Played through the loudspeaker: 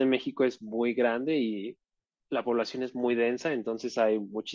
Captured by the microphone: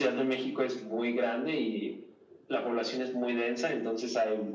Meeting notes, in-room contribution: none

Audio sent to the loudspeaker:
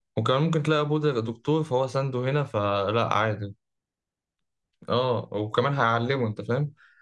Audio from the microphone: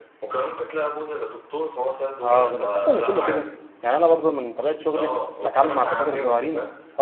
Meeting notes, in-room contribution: present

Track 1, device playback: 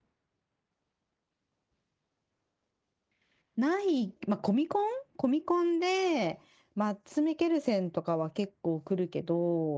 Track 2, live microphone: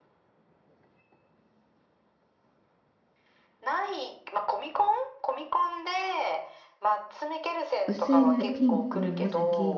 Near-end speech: present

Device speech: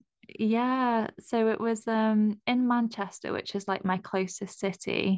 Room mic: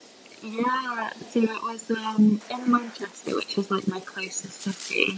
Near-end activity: none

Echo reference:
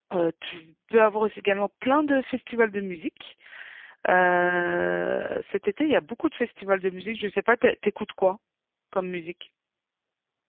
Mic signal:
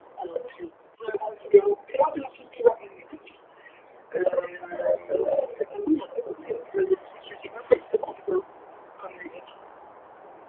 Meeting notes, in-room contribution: none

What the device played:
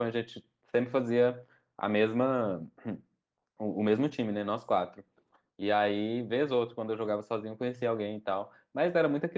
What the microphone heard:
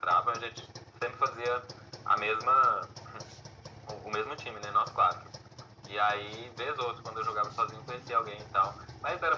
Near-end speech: none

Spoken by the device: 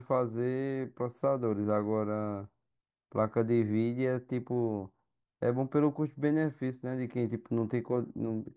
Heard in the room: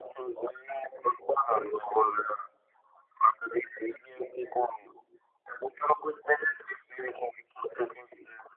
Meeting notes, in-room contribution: none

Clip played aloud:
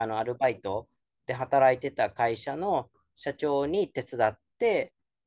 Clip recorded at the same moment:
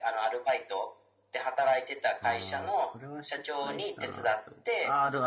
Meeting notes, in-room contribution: present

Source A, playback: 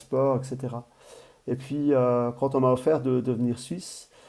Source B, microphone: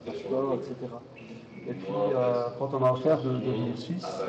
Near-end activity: present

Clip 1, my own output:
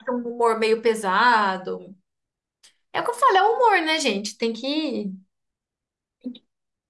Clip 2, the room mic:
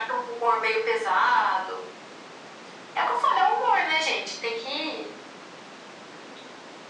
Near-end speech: none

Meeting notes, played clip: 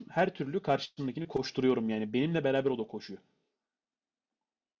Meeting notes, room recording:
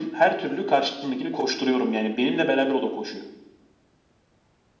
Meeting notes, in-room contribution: none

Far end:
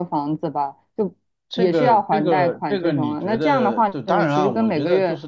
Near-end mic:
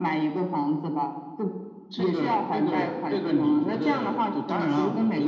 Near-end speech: none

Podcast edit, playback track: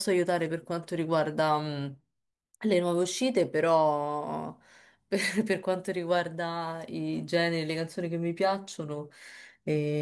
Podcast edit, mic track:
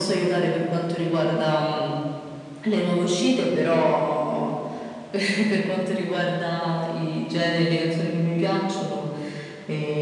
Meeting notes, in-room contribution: none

